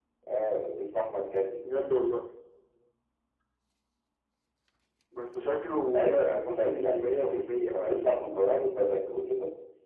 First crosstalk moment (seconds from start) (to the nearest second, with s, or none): 6 s